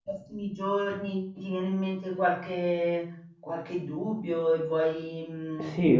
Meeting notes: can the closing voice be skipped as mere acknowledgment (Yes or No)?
No